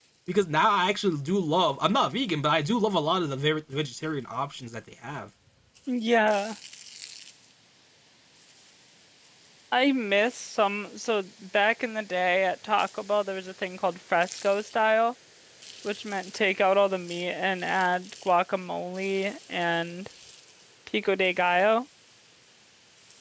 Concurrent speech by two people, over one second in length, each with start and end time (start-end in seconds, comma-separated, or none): none